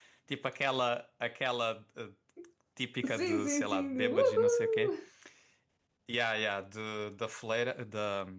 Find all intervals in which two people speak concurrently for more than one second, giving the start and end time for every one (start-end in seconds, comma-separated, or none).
3.0-4.9